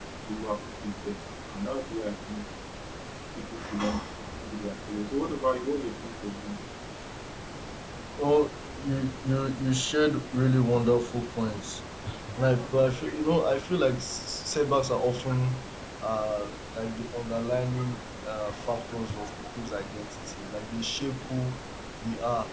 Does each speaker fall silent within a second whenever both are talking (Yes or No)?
Yes